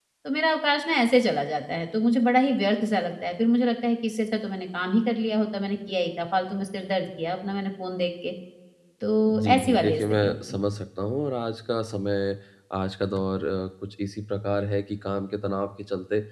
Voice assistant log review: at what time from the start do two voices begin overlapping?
9.3 s

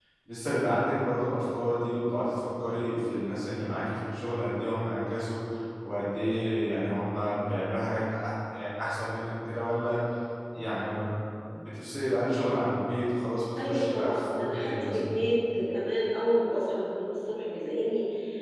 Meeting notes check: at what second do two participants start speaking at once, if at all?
13.6 s

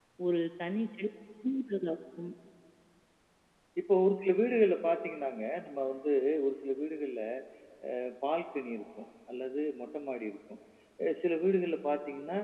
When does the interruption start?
none

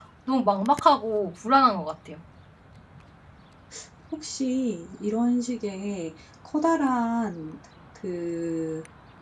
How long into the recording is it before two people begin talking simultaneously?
none

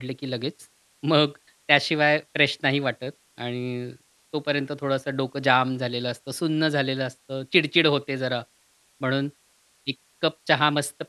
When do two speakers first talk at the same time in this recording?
none

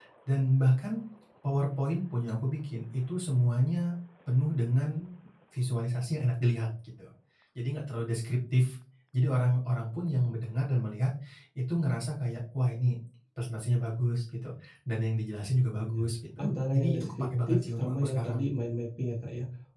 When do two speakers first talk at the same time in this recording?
16.4 s

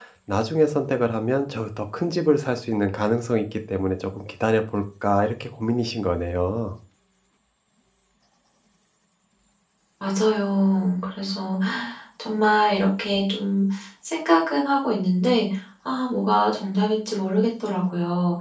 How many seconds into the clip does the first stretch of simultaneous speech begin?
none

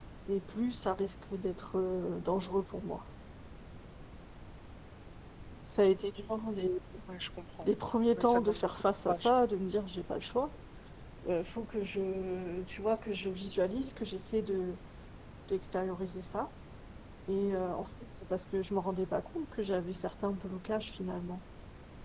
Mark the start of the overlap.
8.1 s

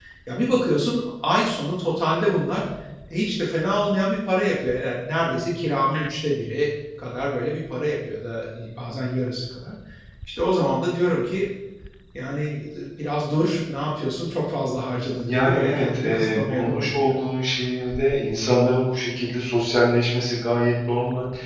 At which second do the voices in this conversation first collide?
15.3 s

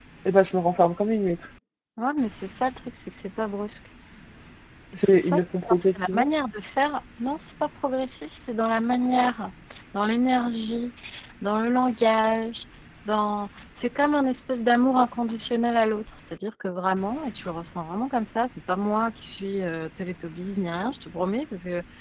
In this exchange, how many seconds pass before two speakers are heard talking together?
4.9 s

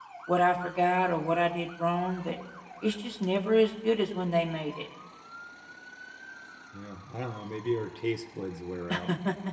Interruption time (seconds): none

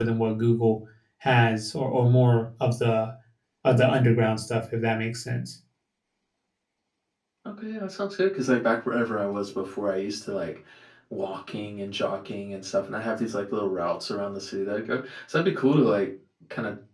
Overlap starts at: none

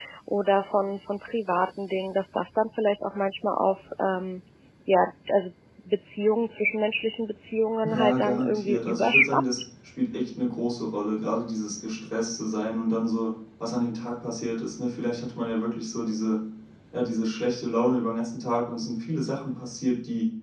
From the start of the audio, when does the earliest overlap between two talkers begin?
7.8 s

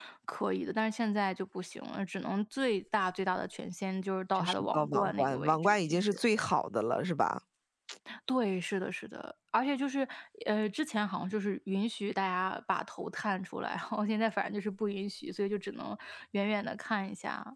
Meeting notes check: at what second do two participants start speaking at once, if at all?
4.3 s

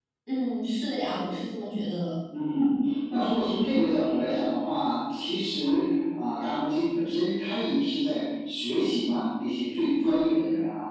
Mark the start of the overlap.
none

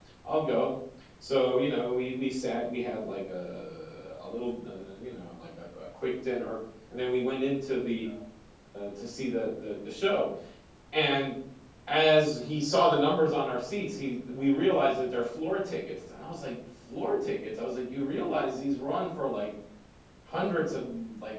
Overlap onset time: none

